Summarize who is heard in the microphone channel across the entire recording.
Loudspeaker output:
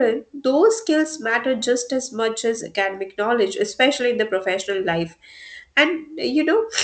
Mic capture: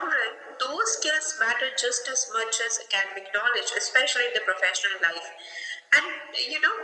echo only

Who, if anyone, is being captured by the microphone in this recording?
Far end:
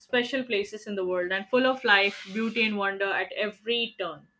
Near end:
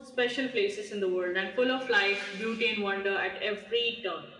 echo only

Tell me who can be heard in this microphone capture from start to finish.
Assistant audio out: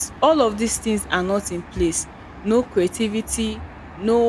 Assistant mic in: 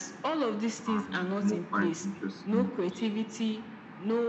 both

